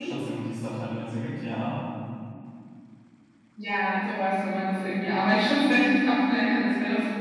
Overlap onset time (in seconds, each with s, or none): none